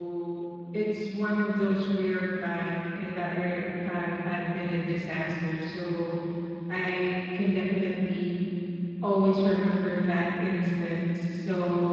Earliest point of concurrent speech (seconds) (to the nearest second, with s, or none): none